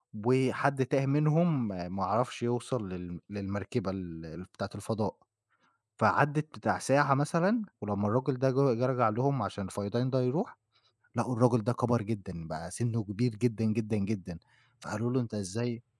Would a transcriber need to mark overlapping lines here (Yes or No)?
No